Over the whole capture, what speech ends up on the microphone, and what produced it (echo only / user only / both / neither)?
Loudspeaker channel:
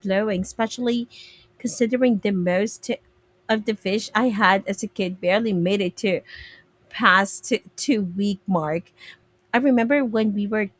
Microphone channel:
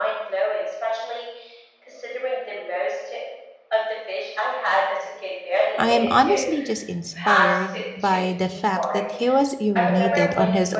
both